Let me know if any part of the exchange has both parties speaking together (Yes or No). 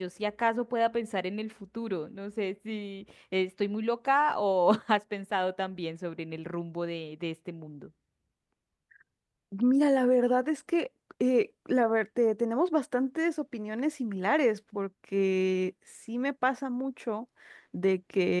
No